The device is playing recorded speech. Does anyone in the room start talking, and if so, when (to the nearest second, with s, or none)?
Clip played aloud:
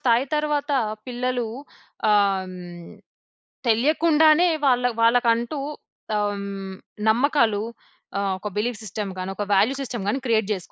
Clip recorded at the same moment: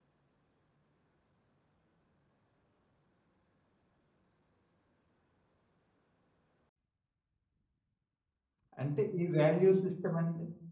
9 s